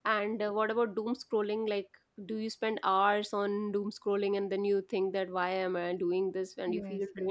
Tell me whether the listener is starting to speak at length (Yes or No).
Yes